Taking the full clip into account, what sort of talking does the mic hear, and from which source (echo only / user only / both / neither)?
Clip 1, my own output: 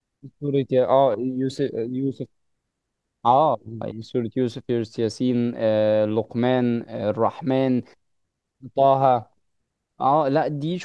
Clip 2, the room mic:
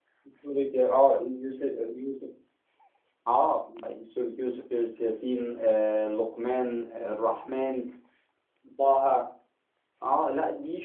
echo only